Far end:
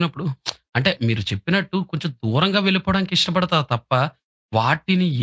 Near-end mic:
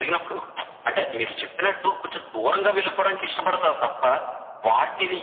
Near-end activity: none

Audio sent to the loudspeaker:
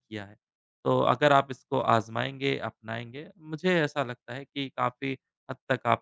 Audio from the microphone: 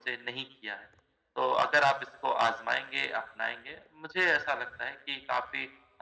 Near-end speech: none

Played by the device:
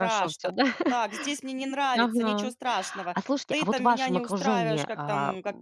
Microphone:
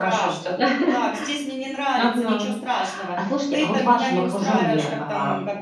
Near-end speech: none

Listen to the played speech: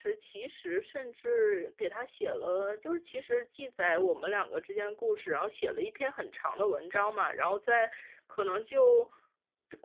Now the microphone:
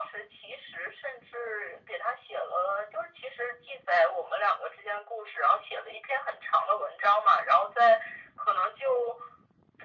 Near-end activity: none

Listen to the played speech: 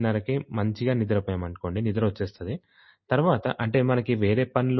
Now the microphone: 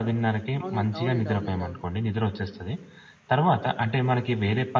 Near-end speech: present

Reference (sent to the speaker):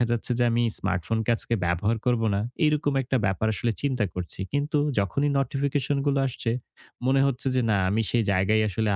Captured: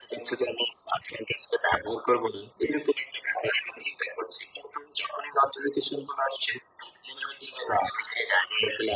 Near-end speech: none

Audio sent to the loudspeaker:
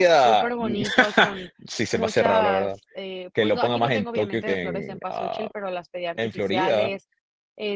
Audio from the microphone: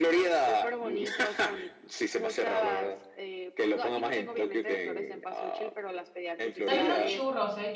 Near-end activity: present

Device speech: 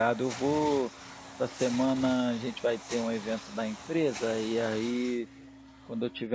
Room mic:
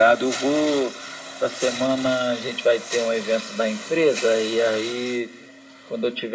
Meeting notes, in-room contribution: none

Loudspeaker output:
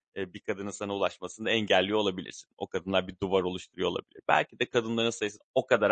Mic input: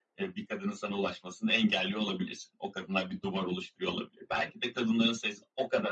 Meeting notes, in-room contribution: none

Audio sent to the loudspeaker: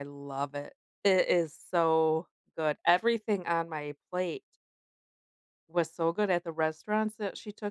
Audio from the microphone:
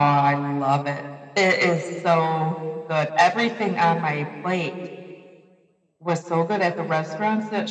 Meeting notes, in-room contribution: none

